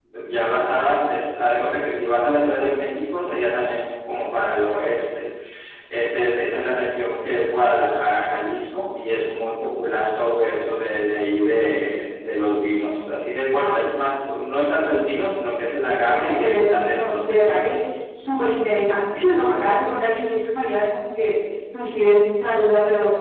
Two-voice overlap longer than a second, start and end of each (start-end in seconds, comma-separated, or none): 15.8-17.7